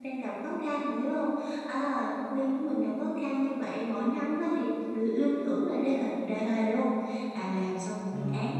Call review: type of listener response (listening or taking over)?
listening